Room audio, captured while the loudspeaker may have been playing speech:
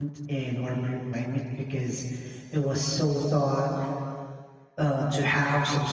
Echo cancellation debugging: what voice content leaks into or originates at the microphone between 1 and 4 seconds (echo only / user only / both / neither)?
user only